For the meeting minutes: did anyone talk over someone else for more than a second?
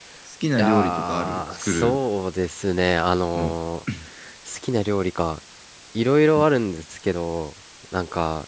Yes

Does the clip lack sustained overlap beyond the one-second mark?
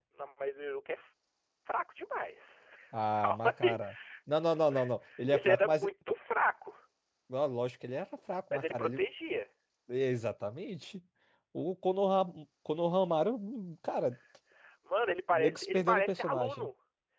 No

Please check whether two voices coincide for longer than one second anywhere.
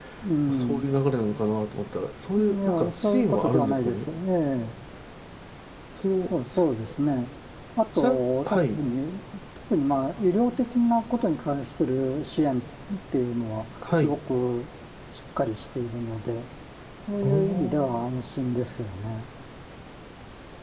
Yes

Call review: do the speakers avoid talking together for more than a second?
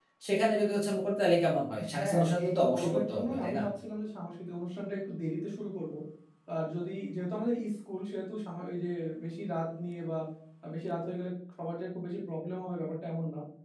No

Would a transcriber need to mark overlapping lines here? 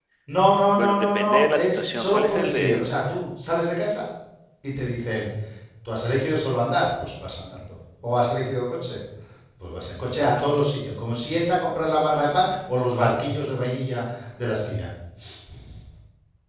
Yes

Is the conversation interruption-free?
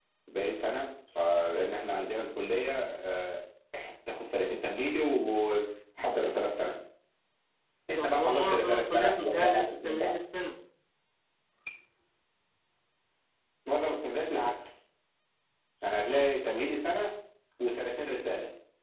No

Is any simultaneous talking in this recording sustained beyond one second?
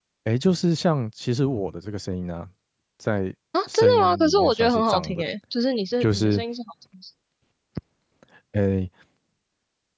Yes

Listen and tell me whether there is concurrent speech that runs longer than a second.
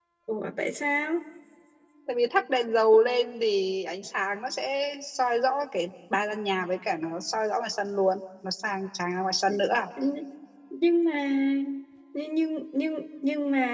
No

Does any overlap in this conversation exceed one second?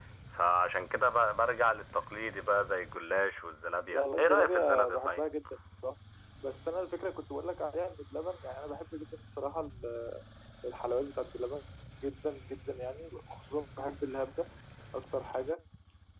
Yes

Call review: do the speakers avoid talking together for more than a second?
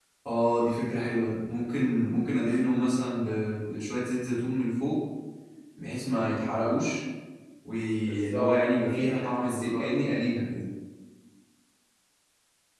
No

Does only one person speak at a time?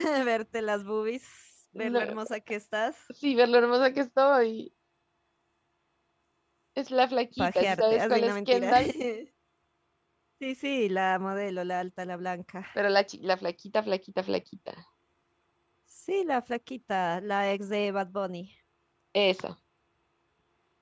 No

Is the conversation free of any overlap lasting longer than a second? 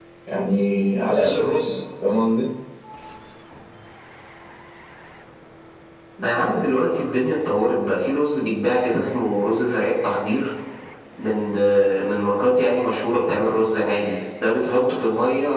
Yes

